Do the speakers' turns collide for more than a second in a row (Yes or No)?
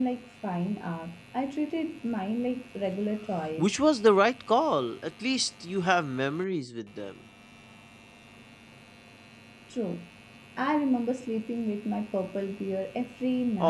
No